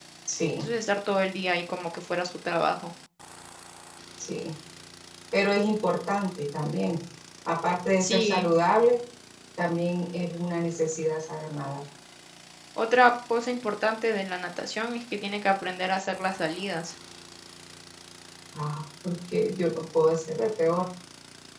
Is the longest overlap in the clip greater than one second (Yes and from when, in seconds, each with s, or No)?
No